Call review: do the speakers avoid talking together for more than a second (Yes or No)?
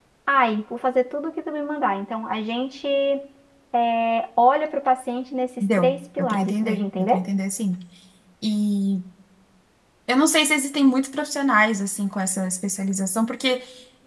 No